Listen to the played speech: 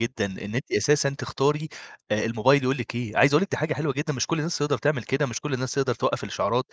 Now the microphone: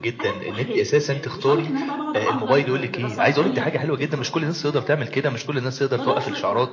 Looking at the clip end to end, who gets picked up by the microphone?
both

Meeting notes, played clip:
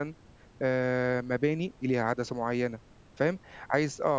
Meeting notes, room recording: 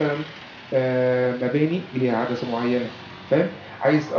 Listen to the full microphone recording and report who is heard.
echo only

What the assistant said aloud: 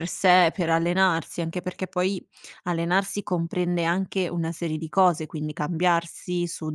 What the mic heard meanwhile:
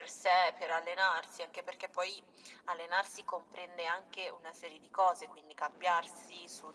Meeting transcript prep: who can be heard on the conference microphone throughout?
echo only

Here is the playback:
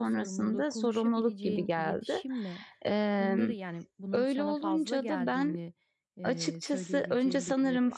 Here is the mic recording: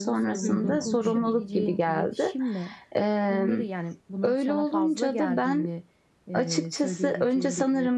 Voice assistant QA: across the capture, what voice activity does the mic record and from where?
both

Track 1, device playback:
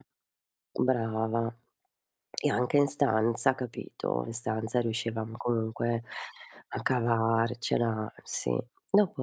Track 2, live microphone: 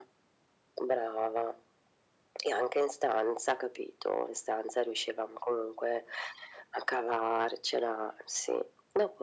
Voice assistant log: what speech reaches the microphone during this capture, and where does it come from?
echo only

